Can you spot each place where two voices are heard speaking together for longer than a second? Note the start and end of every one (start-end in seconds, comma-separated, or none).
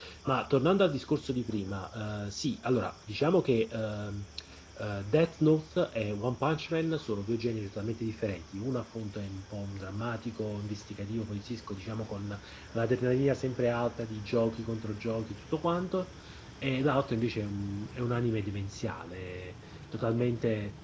none